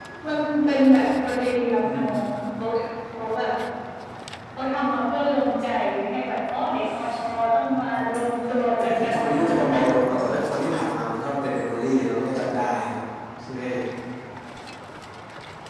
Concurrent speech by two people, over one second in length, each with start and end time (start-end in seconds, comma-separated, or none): 8.8-10.4